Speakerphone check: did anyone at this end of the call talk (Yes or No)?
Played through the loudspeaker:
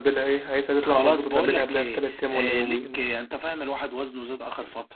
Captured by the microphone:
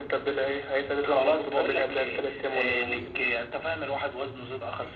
No